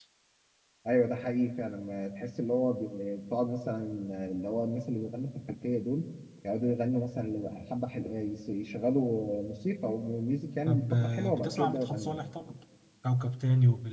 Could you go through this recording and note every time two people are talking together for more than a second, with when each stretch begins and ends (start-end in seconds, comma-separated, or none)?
10.7-12.2